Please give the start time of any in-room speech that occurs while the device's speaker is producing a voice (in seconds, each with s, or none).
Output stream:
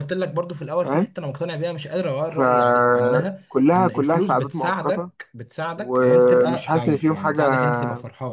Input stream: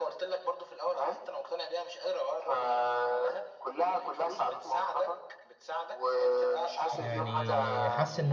6.9 s